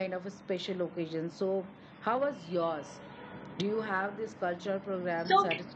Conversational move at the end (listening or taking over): taking over